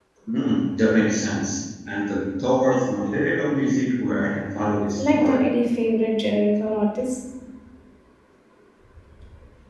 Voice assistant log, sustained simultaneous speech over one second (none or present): none